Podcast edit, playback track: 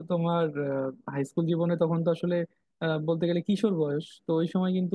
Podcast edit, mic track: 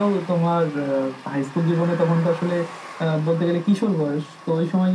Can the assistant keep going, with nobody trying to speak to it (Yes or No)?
Yes